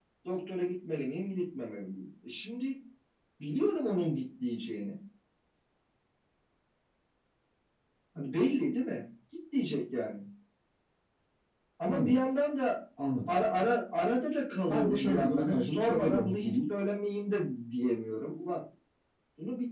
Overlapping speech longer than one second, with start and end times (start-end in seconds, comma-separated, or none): 14.7-16.6